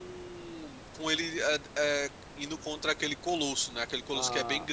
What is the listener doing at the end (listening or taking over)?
taking over